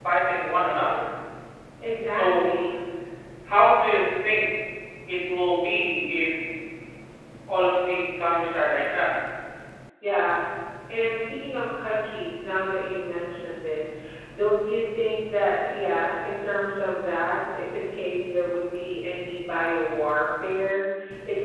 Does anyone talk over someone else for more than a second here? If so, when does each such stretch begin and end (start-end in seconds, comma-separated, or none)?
none